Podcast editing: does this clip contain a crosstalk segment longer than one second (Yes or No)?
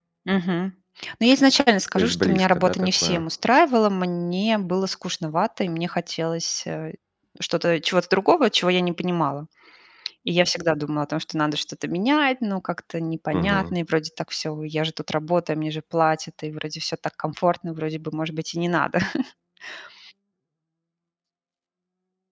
Yes